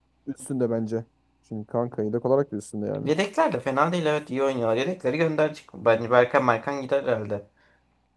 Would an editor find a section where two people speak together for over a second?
No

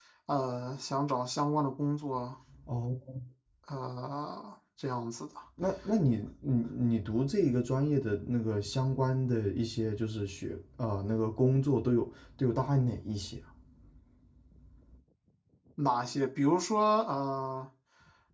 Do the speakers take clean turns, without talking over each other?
Yes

